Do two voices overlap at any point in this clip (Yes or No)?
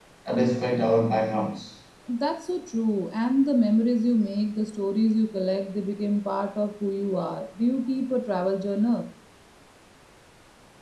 No